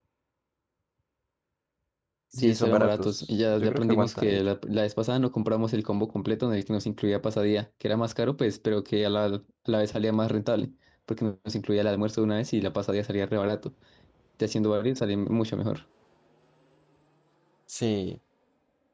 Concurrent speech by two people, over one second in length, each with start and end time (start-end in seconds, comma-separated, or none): 2.4-4.4